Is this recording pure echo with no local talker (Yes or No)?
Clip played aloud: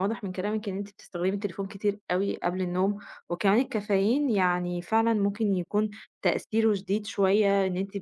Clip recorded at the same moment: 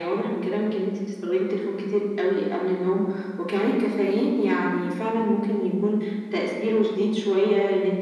Yes